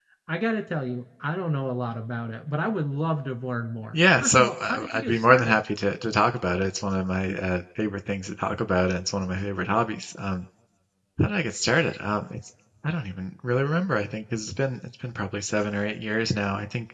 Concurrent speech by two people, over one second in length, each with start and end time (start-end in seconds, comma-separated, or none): 3.9-5.6